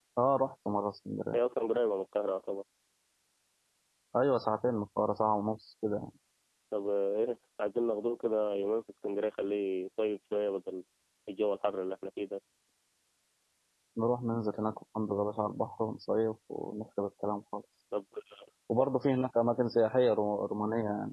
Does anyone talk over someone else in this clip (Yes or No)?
No